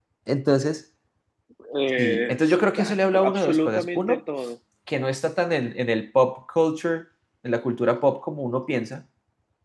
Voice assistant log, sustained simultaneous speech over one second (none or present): present